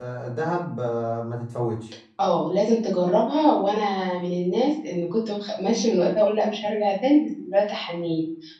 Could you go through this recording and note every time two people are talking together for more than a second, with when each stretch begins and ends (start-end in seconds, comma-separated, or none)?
none